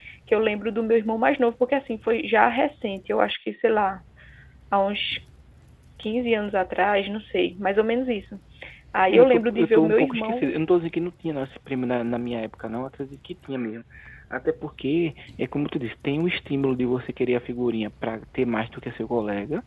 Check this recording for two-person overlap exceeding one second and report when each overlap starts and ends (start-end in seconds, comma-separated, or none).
9.1-10.6